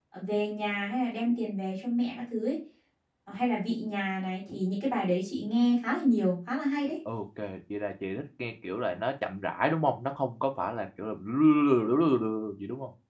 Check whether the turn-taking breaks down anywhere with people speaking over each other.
No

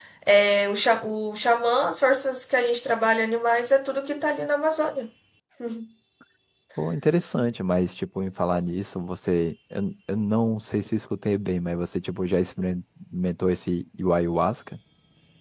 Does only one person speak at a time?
Yes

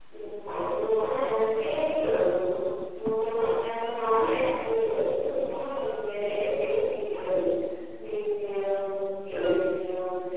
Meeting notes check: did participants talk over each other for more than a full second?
No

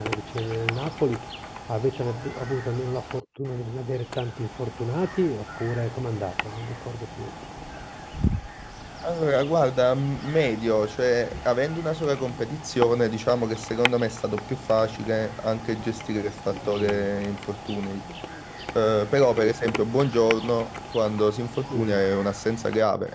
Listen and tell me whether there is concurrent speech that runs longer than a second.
No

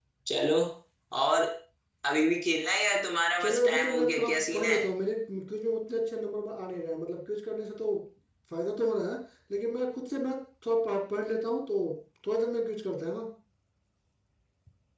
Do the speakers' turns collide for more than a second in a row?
Yes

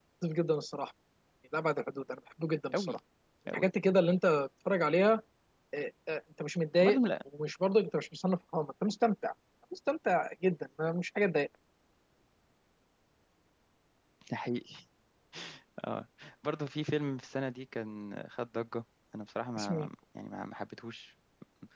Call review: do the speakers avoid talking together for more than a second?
Yes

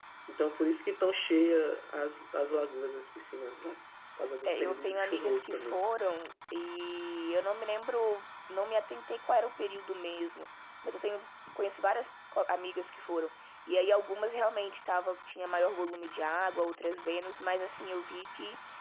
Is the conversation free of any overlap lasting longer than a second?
No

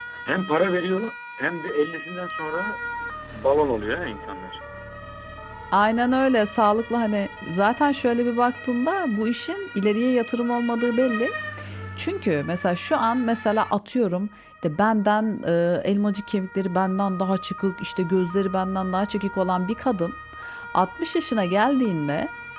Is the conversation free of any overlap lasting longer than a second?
Yes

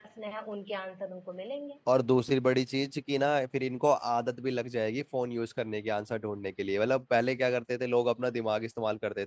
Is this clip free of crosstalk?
Yes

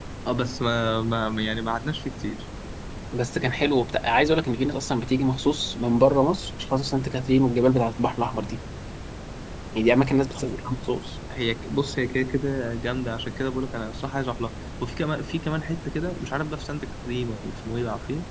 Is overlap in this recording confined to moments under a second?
Yes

